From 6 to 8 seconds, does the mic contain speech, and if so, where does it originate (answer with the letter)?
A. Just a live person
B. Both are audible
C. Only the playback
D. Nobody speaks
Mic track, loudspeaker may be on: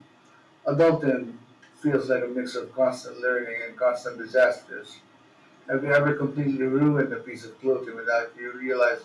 C